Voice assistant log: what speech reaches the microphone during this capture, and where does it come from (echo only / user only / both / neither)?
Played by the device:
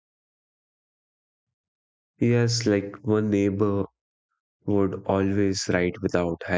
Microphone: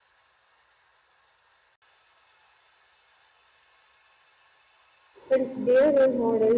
user only